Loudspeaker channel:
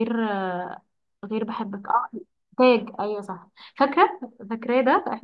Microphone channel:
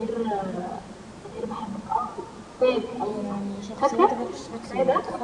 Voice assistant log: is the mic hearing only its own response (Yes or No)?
No